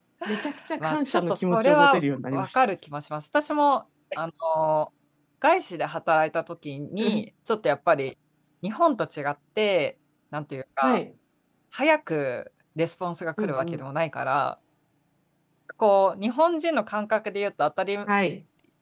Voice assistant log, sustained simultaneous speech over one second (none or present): present